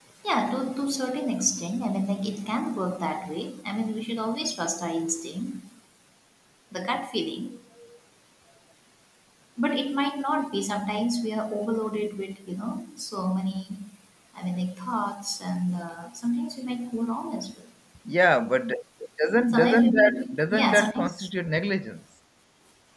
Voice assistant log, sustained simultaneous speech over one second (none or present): present